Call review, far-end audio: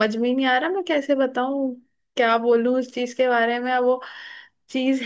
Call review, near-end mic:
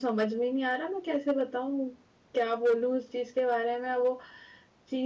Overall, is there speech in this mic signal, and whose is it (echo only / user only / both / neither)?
echo only